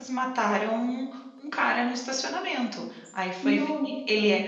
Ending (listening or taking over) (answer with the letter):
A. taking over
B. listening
B